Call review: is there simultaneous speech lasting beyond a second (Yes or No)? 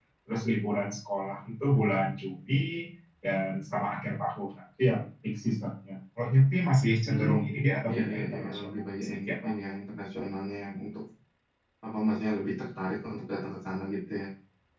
Yes